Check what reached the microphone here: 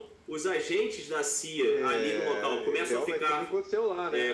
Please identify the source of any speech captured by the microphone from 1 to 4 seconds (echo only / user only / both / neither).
echo only